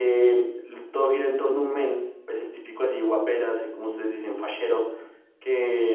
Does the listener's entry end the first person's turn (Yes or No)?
No